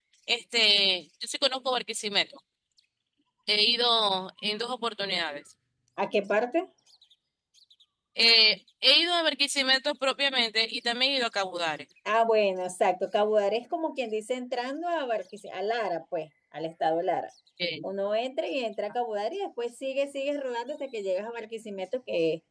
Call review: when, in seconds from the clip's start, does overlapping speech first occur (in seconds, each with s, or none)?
none